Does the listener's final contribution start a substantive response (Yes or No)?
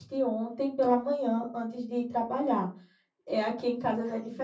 No